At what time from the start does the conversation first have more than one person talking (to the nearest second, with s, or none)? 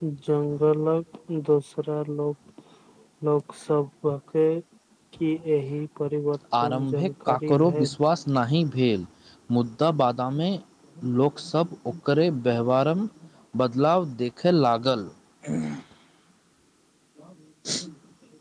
7 s